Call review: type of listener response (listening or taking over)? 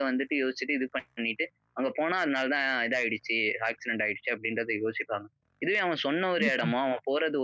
listening